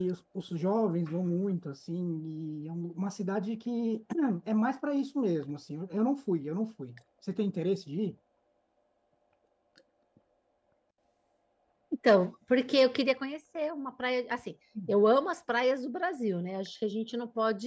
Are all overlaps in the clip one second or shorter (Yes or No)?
Yes